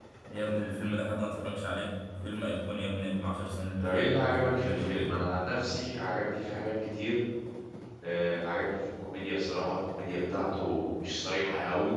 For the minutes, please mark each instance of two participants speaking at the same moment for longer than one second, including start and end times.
3.8-5.2

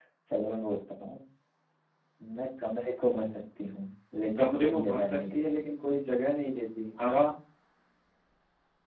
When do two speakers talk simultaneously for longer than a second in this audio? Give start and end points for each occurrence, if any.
4.4-5.6

